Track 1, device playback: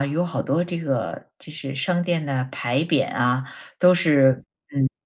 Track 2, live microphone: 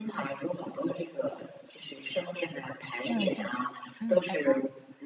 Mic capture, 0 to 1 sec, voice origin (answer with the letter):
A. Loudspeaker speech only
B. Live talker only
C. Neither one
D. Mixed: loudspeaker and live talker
A